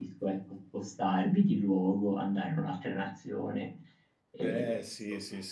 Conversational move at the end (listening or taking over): taking over